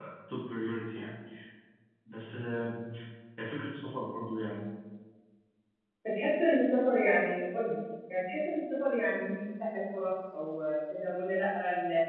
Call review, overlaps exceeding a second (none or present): none